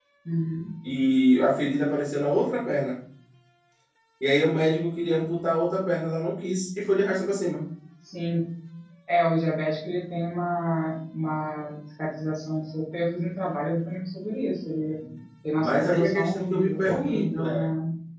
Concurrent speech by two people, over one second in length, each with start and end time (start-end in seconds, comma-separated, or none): 15.6-17.7